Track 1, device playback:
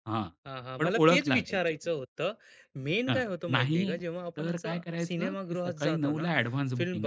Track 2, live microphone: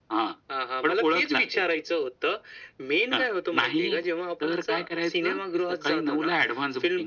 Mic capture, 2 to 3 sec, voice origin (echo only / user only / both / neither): echo only